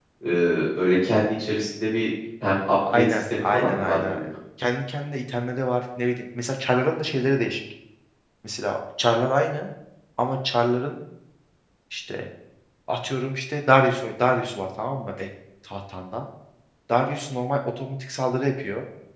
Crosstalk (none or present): present